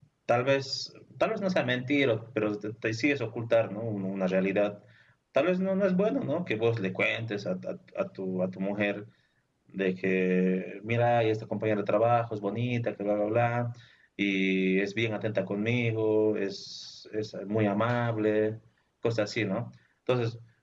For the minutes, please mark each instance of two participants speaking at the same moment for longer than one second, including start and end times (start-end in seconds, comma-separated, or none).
none